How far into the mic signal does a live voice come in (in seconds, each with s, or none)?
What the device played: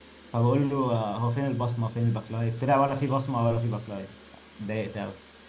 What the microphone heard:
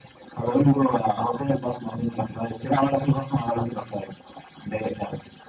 none